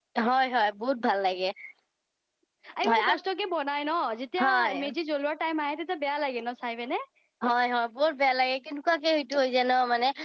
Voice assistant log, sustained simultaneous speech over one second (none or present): none